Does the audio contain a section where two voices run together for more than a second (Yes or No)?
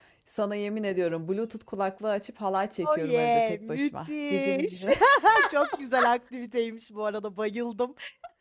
Yes